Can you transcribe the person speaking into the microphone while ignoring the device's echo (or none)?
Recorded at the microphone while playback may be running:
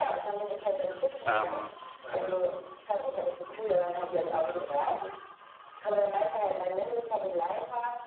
Ähm,